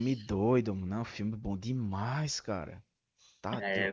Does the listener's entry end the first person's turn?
No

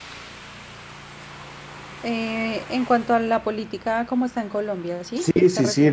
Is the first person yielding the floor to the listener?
Yes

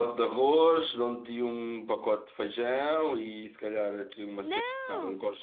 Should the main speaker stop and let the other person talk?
No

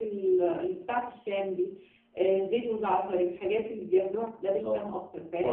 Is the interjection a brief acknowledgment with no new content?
No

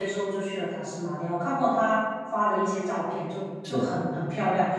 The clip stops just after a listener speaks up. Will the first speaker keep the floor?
Yes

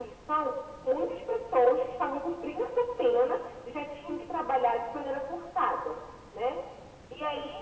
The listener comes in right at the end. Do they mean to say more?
No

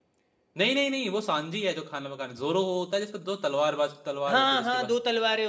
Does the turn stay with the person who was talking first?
No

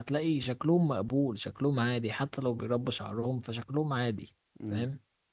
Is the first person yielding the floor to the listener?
Yes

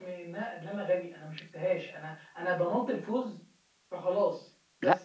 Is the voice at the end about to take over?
No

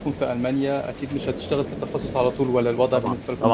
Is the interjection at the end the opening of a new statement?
Yes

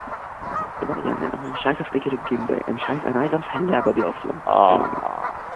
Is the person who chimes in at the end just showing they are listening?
No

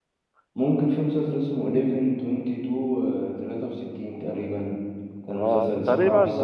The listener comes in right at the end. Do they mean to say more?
Yes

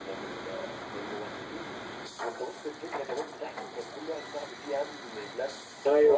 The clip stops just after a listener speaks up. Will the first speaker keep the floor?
No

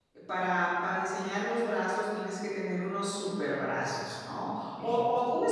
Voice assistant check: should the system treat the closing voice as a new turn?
No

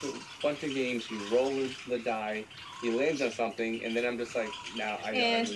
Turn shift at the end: No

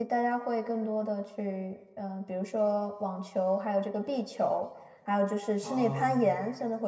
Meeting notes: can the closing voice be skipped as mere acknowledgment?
Yes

